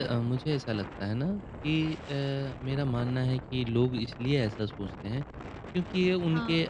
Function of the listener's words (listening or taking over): listening